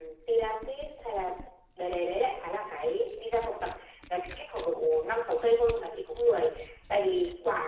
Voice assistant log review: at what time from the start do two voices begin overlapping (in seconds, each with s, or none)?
none